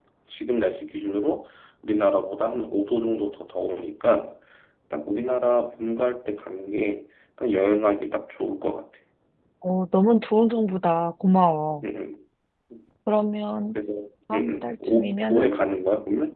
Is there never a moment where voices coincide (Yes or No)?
No